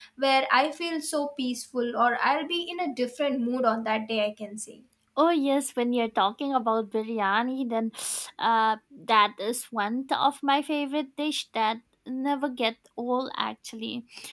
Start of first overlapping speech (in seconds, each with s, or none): none